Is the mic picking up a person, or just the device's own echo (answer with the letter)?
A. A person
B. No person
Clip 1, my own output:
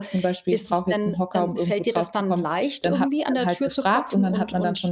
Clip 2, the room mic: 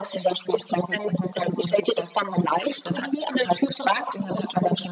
B